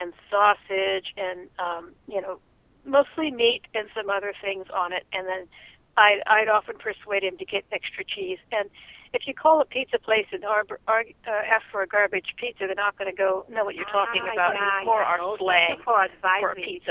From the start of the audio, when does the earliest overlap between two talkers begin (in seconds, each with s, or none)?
13.8 s